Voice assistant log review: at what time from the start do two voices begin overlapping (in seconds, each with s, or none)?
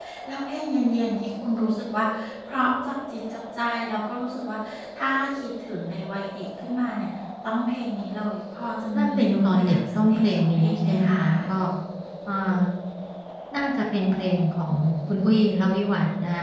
8.9 s